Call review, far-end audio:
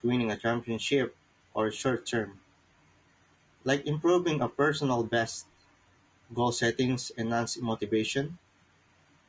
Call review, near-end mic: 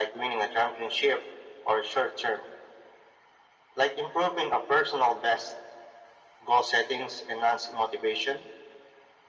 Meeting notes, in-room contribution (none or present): none